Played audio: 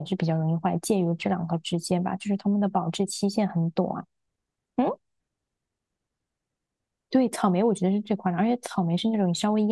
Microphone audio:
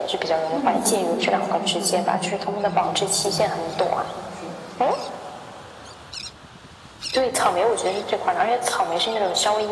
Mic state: both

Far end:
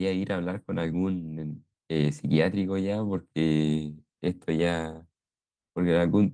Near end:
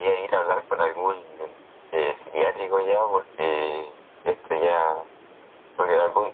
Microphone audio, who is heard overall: echo only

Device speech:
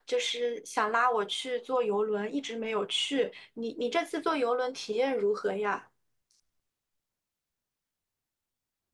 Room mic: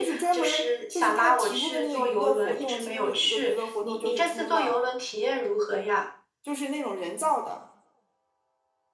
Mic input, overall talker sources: both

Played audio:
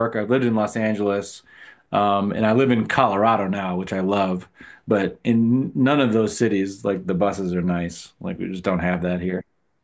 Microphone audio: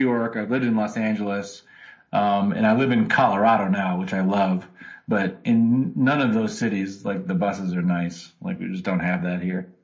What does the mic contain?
echo only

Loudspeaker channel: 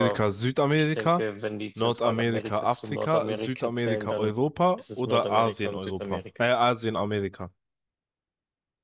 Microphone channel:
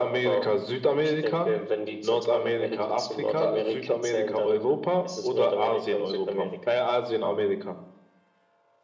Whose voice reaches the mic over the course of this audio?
echo only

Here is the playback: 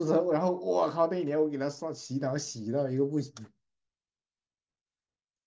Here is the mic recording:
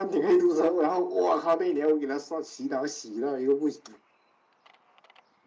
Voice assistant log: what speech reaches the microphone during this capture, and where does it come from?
echo only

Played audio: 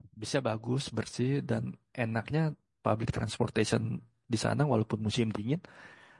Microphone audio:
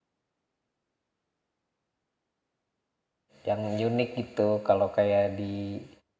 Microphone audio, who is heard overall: user only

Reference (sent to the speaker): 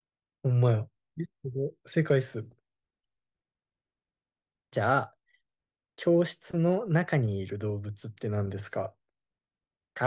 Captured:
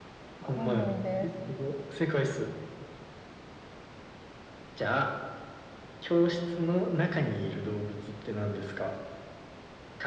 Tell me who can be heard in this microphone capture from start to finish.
both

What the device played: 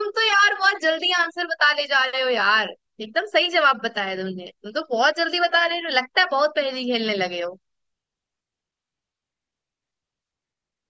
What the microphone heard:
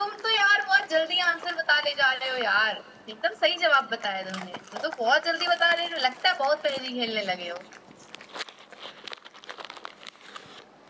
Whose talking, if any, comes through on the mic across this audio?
echo only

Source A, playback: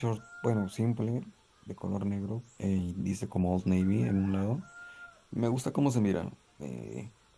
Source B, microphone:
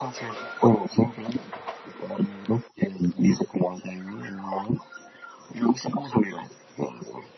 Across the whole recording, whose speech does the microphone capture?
echo only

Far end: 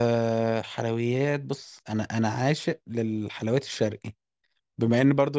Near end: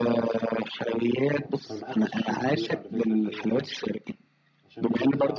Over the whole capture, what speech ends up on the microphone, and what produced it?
both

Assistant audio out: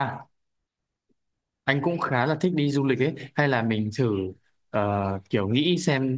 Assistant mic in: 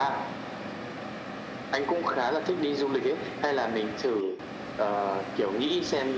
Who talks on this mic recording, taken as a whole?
echo only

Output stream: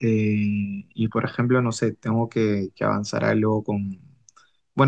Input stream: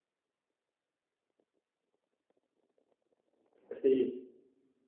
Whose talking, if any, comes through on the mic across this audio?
user only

